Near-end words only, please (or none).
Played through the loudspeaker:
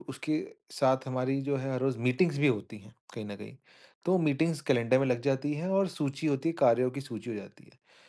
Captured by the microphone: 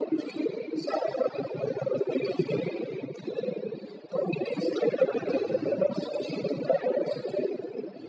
अच्छा, हाँ, हाँ।